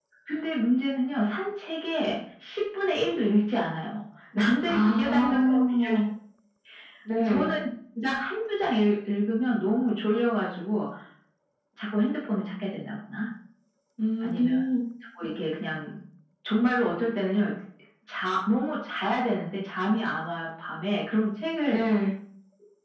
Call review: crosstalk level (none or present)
present